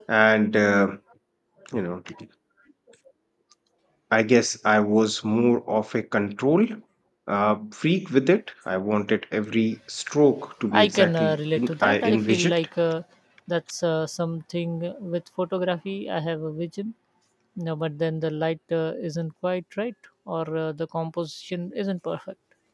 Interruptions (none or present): present